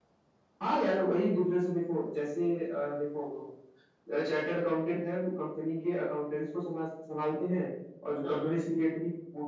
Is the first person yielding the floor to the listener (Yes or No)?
No